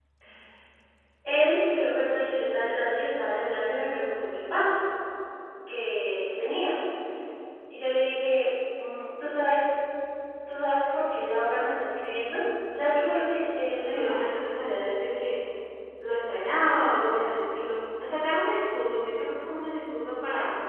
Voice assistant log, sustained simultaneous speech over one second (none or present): none